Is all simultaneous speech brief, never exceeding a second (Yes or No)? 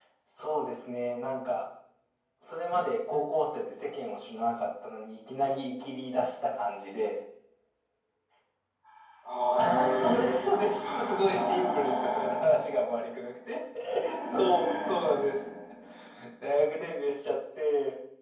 No